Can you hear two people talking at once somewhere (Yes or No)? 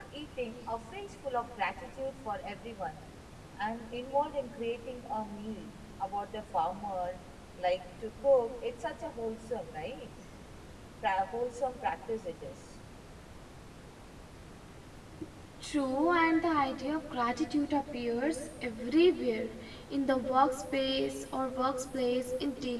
No